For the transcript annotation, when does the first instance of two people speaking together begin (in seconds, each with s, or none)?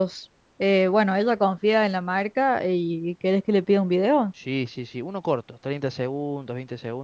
none